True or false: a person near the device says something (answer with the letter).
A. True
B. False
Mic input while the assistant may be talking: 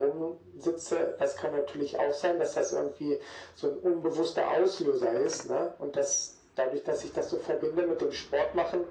B